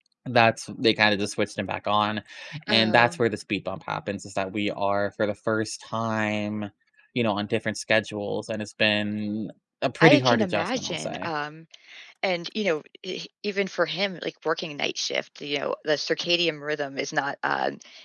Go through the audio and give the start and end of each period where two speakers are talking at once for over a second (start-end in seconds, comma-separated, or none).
10.0-11.3